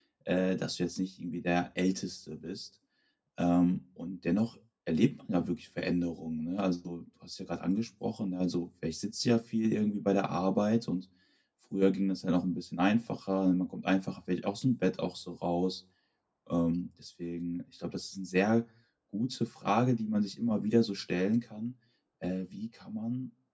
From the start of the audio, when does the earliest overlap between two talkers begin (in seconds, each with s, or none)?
none